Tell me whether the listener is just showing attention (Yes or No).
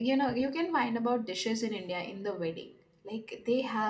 Yes